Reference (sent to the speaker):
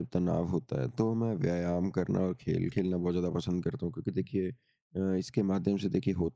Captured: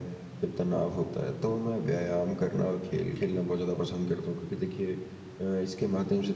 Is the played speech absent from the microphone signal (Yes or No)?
No